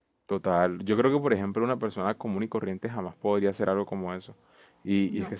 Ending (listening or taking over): listening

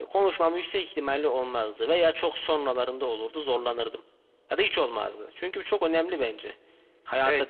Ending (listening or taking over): taking over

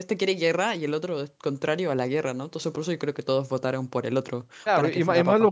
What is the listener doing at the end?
taking over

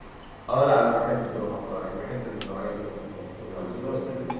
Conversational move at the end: taking over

